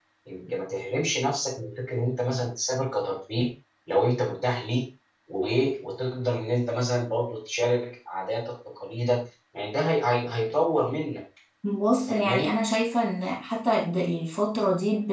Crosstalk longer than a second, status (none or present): none